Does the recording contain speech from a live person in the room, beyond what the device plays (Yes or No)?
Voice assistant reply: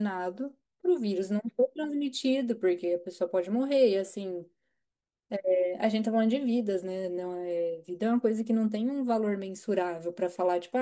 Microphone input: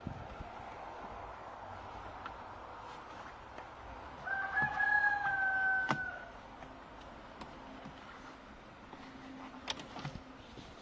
No